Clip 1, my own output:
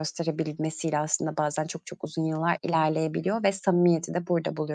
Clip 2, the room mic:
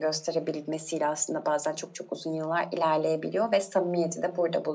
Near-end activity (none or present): none